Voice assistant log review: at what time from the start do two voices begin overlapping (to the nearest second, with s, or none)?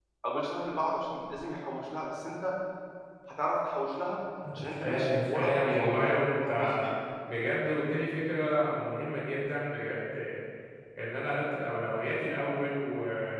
5 s